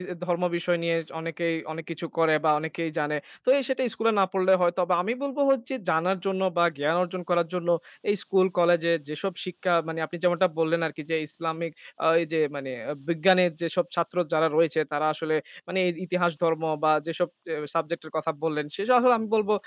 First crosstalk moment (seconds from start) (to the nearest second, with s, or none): none